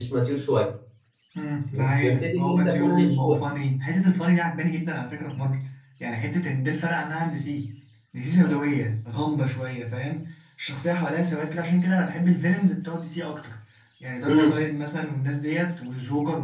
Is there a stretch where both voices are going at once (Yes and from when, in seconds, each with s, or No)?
Yes, from 1.7 s